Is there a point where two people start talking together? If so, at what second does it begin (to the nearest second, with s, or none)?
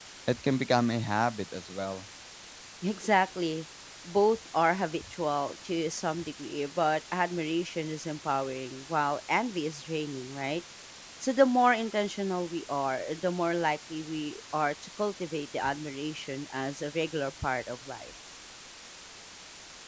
none